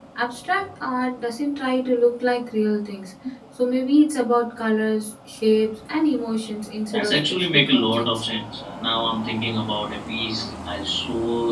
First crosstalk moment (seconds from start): 6.9 s

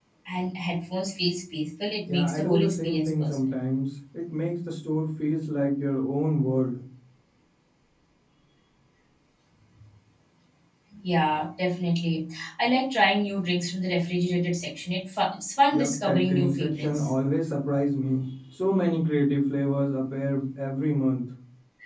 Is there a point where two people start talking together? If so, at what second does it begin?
2.1 s

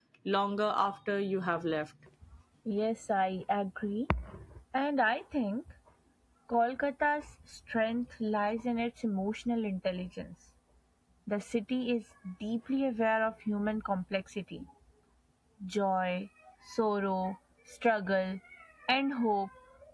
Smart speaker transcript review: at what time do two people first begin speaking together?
none

